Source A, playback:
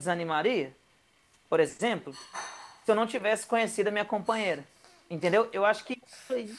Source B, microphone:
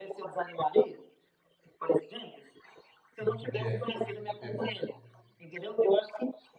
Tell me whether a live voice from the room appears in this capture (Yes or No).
Yes